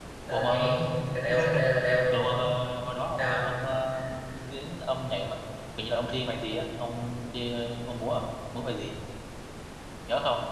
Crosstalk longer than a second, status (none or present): none